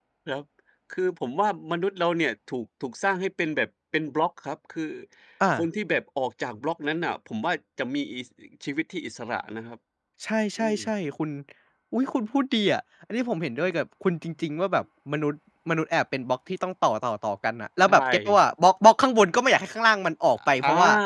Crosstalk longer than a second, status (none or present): none